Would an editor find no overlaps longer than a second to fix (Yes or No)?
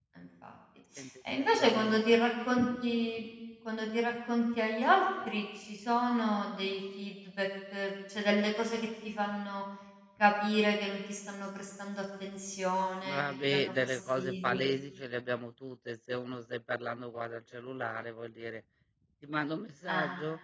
No